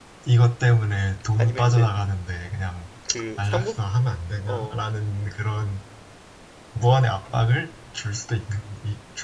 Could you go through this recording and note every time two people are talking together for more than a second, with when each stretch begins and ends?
none

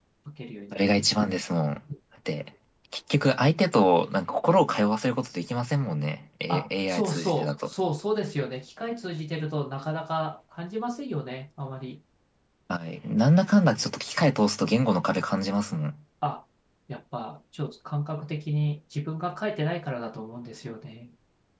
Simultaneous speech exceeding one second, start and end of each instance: 6.5-7.7

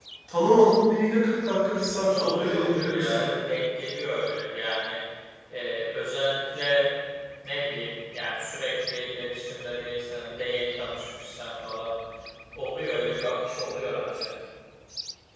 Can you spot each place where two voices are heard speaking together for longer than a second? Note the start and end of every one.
2.1-3.3

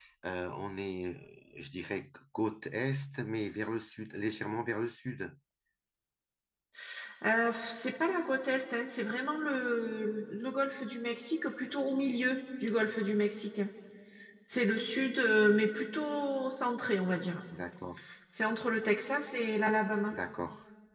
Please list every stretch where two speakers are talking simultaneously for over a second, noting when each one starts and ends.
none

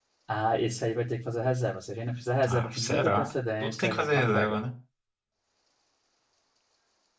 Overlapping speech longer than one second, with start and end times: 2.5-4.6

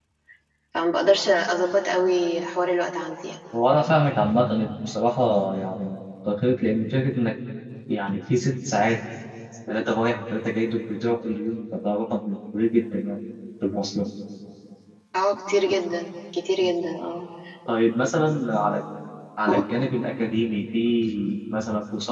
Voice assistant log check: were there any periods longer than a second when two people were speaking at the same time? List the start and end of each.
none

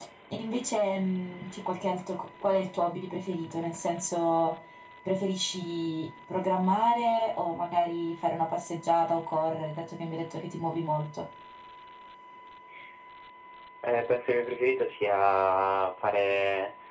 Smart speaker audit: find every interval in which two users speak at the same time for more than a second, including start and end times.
none

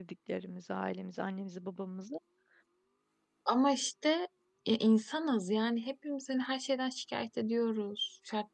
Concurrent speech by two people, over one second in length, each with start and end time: none

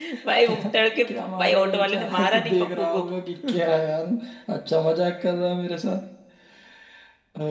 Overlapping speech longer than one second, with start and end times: 1.4-3.0

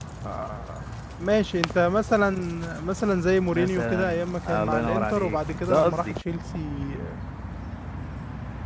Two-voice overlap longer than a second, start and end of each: 3.5-6.1

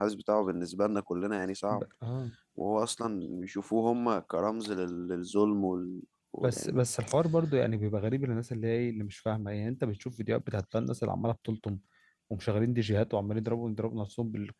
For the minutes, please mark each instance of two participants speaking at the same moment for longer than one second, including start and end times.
none

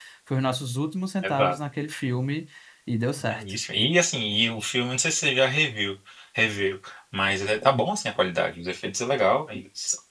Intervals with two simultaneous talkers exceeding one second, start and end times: none

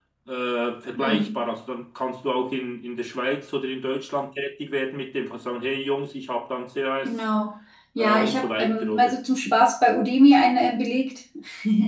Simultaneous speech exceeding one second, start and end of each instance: 8.0-9.2

